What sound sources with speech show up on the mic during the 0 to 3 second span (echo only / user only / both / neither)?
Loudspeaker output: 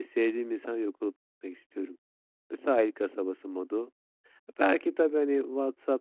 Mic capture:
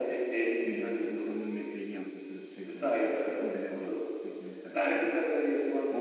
both